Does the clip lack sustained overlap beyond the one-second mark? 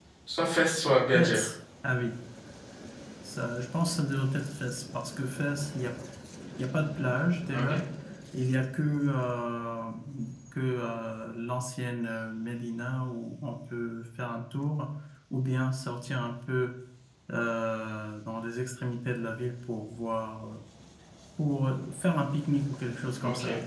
Yes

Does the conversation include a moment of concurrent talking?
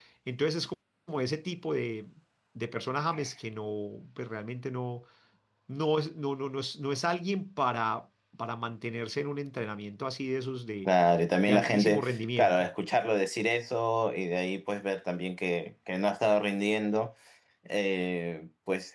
Yes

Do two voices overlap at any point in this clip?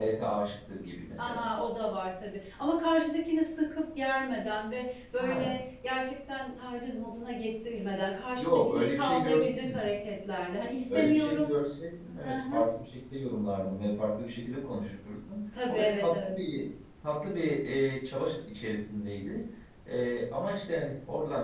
Yes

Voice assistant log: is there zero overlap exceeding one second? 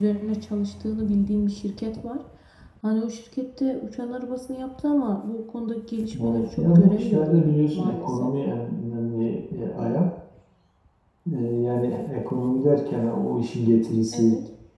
No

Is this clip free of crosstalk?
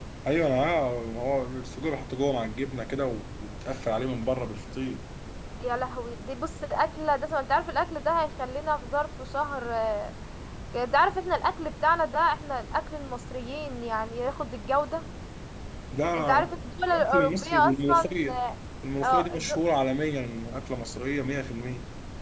No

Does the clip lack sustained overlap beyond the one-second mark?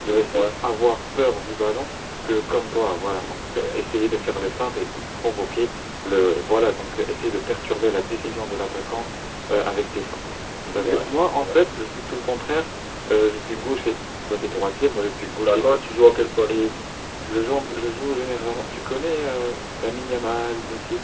Yes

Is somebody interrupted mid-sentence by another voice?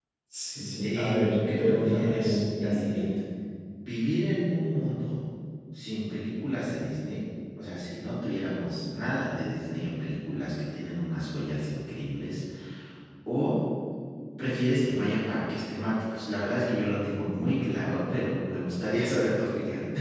Yes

